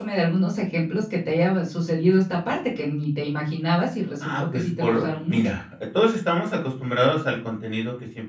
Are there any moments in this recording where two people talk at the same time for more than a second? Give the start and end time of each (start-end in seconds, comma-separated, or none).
4.2-5.5